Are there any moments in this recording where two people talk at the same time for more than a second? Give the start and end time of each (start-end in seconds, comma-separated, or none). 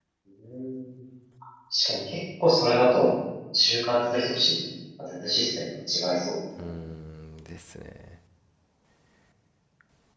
none